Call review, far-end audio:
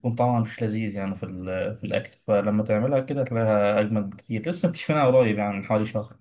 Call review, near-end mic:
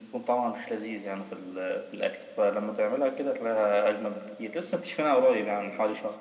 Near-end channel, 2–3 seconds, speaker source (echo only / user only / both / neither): echo only